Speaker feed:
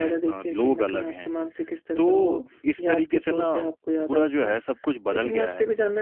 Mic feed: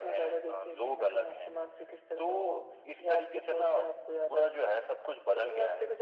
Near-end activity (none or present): none